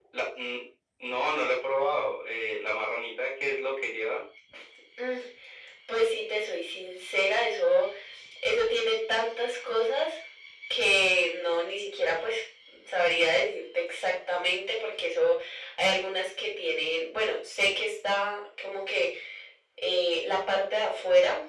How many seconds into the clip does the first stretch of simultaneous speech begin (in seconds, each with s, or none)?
none